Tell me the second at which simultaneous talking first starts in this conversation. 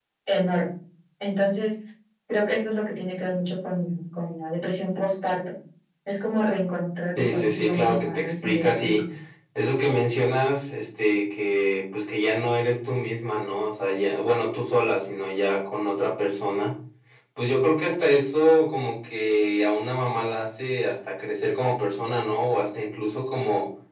7.2 s

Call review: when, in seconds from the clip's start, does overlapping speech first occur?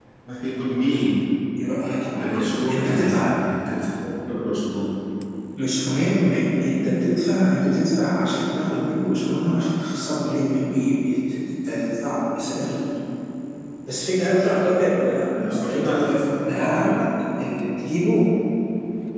2.1 s

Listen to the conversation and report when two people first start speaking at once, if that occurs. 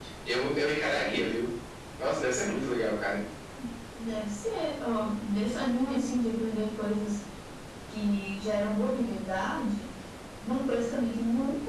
none

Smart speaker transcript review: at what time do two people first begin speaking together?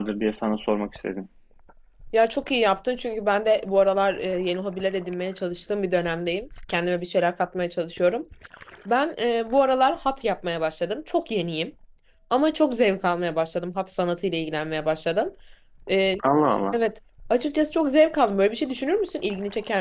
none

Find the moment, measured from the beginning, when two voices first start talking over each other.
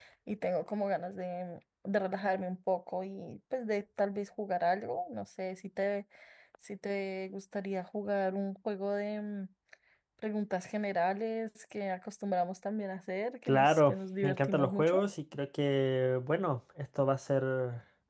13.5 s

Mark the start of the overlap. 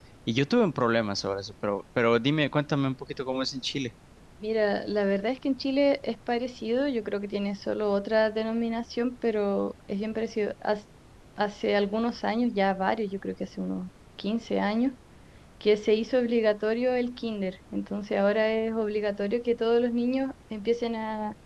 none

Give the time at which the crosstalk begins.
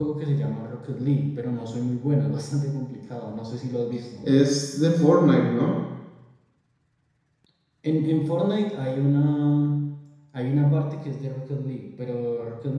none

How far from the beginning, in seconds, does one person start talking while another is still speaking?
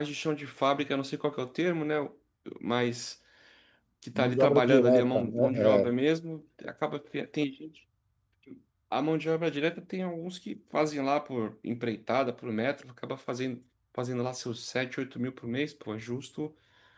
4.2 s

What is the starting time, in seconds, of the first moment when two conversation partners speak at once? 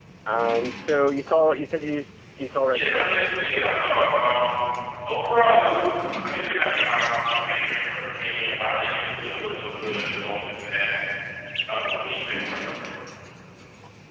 2.7 s

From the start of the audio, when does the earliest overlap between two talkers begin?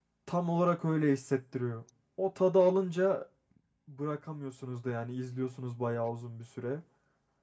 none

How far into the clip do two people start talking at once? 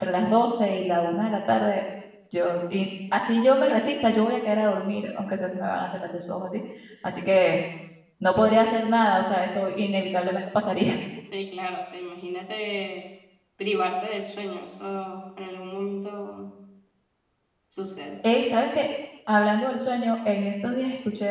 none

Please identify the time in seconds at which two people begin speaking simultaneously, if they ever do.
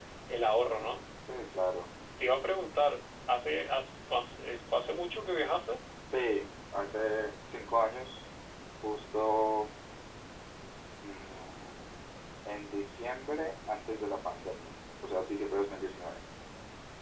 none

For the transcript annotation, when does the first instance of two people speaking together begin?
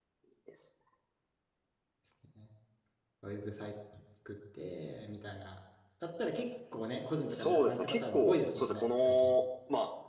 7.3 s

